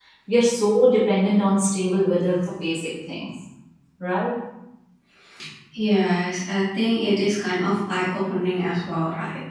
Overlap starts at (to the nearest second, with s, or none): none